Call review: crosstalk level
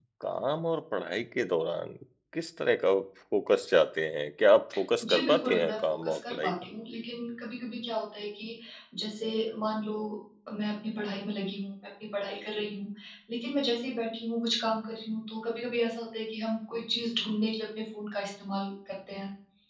present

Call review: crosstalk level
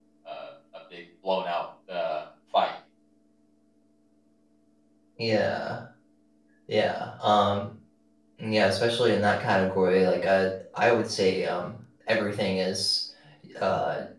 none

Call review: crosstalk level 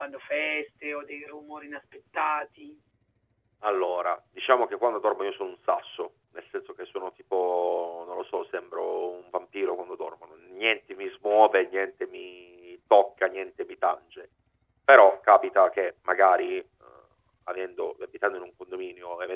none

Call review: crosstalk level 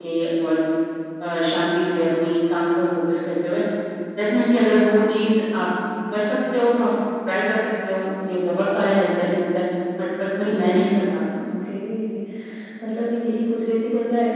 none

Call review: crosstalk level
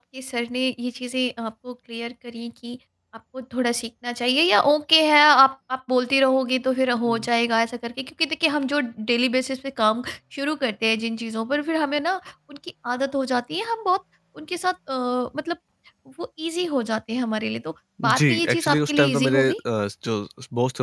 present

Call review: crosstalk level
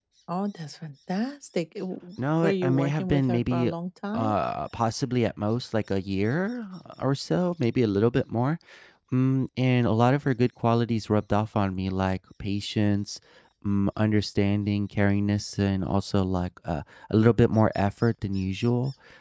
present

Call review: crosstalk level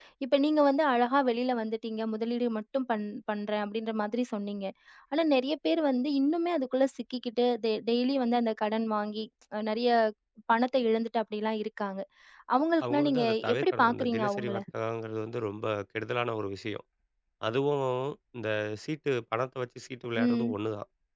present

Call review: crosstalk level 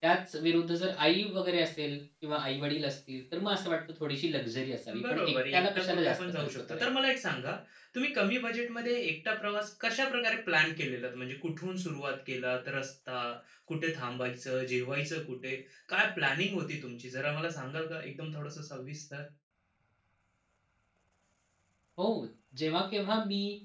present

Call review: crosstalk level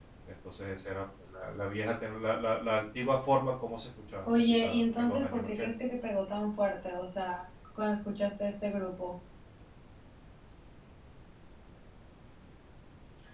present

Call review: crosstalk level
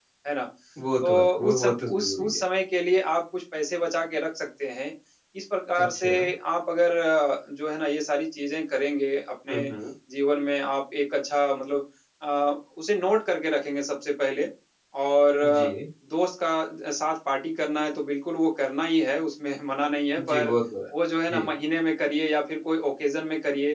present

